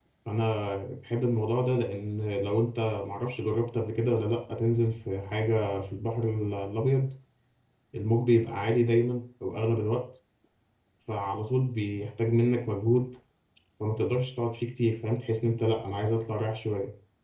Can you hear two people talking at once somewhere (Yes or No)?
No